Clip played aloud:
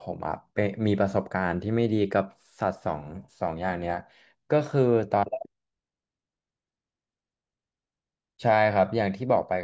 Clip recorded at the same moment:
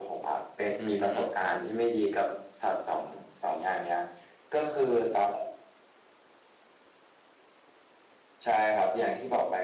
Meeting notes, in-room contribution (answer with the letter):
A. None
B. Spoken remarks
B